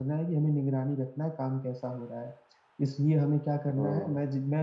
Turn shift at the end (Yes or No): No